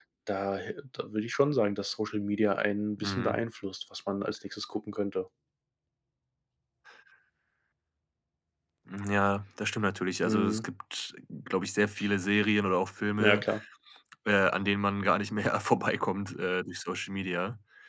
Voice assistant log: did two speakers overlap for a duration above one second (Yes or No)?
No